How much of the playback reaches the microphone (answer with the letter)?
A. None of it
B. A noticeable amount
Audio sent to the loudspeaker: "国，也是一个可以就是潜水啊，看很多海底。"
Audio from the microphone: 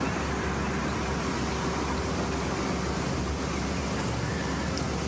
A